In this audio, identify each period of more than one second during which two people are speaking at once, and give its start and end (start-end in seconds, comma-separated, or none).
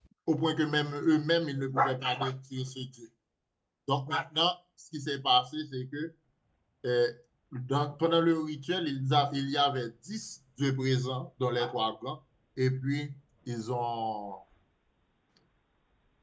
none